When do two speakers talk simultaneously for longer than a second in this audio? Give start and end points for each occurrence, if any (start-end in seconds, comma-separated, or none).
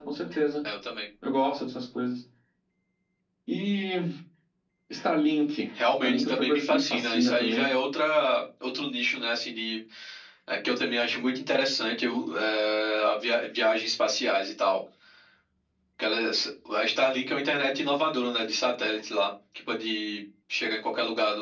6.0-7.7